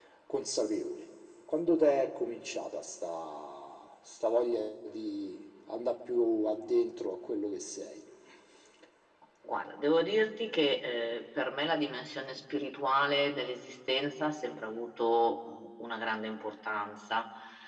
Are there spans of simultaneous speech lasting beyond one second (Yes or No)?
No